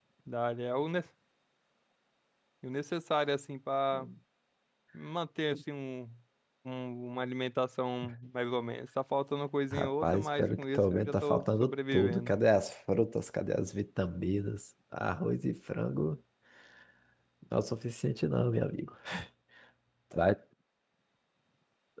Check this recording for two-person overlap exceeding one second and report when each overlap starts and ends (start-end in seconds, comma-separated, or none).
9.7-12.3